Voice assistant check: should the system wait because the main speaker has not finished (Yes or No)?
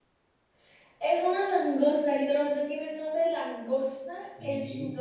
No